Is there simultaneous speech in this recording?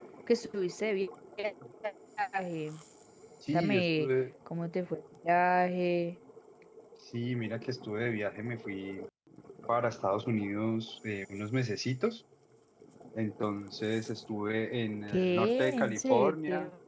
Yes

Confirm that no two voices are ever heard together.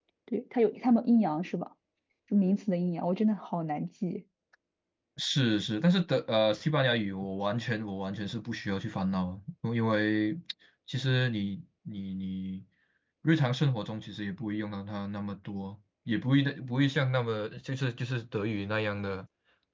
Yes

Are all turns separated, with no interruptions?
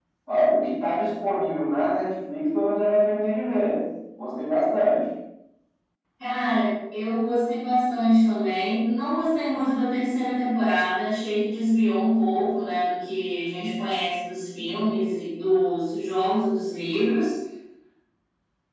Yes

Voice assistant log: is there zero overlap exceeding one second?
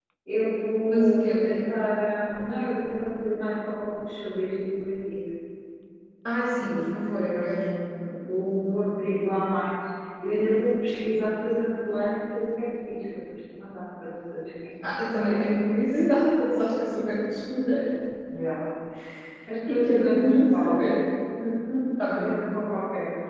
No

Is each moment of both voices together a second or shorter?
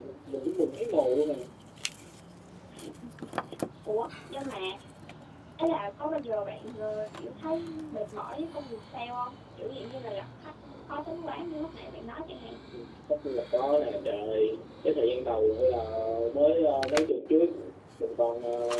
Yes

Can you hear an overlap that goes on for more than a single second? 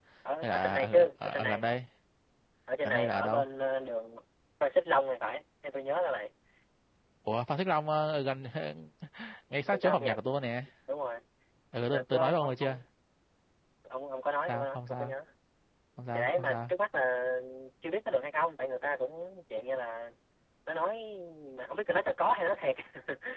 Yes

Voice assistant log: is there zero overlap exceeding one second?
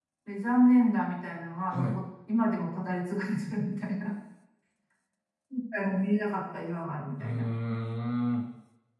Yes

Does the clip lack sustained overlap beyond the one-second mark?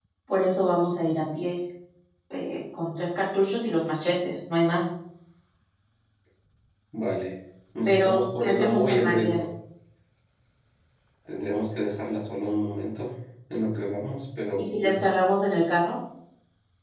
No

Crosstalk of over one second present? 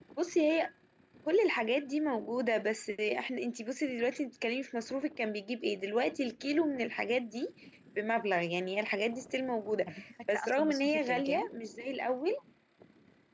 Yes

